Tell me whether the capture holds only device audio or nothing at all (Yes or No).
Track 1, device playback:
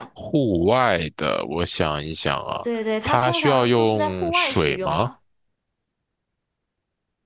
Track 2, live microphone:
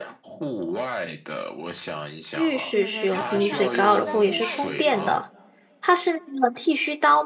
No